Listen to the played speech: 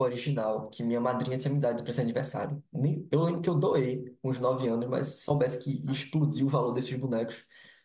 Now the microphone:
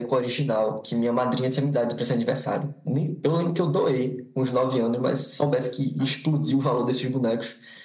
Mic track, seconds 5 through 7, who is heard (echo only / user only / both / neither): echo only